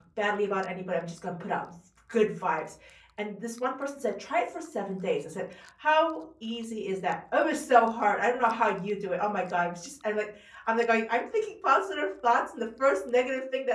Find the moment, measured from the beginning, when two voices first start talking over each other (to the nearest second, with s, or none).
none